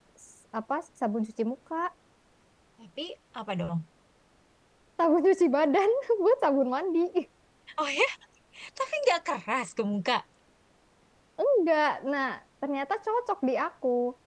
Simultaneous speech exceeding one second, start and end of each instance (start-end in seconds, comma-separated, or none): none